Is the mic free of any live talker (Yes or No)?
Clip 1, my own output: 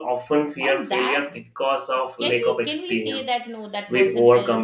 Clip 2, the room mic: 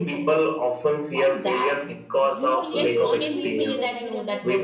No